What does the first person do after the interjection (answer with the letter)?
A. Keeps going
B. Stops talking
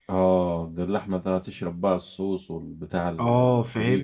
B